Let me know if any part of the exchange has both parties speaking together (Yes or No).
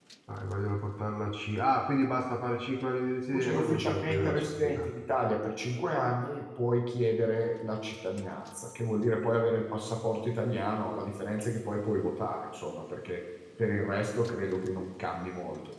Yes